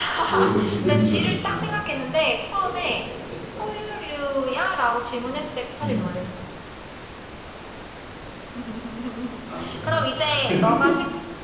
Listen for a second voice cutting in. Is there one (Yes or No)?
Yes